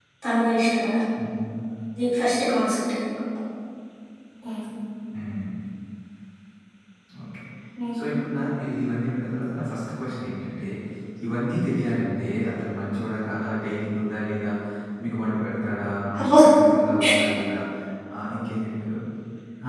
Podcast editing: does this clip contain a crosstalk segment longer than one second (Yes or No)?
No